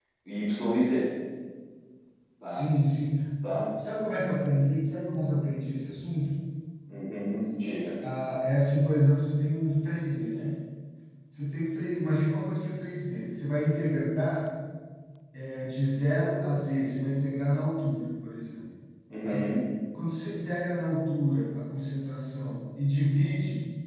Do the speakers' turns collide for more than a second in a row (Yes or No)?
No